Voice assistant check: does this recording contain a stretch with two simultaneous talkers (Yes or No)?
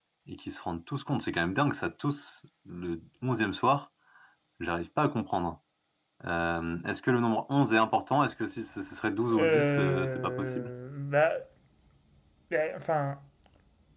Yes